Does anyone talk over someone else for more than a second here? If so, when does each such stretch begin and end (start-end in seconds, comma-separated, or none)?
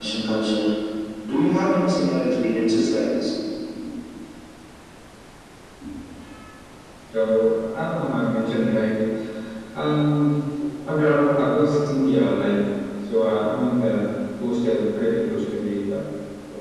none